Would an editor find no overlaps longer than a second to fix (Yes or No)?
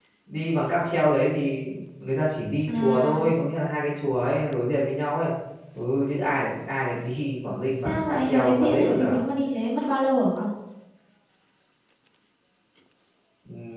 No